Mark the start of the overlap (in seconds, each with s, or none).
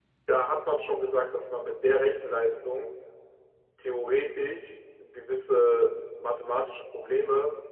none